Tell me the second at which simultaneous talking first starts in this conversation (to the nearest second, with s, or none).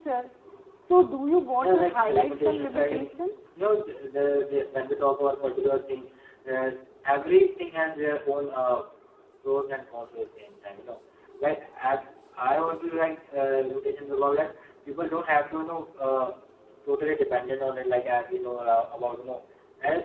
2 s